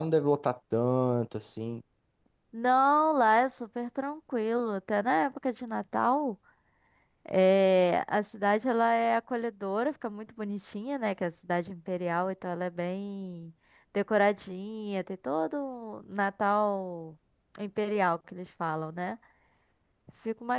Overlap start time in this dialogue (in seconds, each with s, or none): none